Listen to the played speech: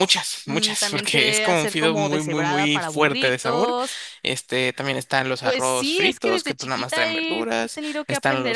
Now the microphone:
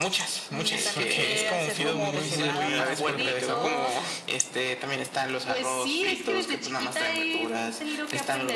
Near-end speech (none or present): present